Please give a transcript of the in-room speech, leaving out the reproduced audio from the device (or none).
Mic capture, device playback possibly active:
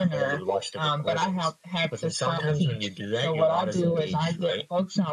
none